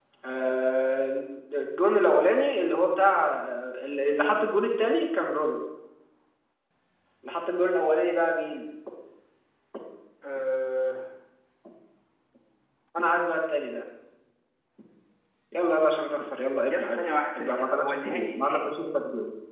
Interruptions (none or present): present